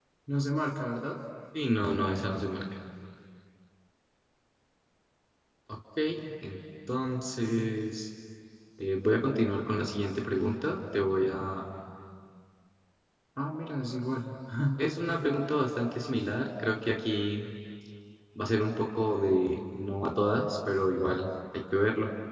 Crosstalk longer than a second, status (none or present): none